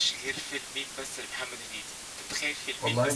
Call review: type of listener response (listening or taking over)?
listening